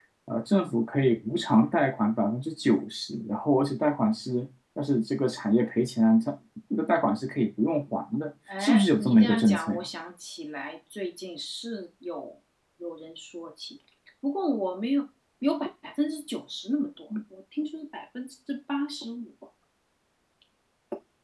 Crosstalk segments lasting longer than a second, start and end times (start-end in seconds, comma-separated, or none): 8.6-9.8